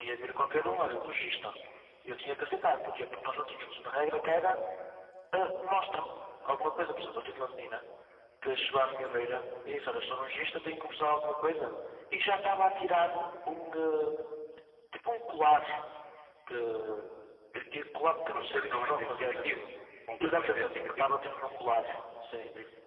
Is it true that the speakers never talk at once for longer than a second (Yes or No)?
No